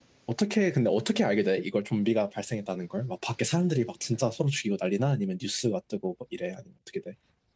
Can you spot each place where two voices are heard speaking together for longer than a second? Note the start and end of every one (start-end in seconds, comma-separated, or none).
none